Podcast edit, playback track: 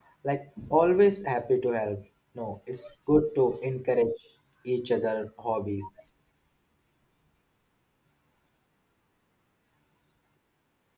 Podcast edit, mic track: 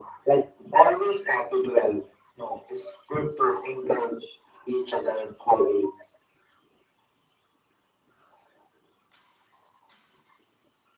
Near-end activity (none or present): none